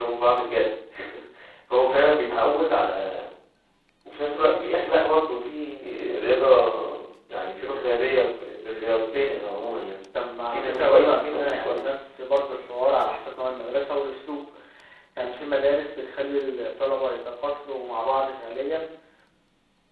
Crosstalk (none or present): present